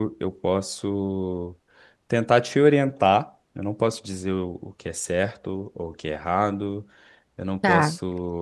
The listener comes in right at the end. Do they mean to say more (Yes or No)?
No